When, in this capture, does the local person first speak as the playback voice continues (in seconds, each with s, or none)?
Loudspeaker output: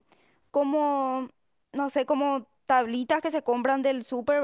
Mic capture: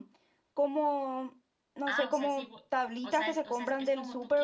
1.9 s